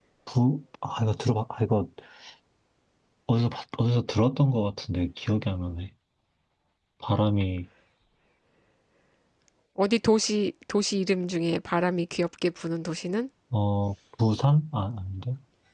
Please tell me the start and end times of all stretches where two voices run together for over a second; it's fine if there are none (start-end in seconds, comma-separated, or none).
none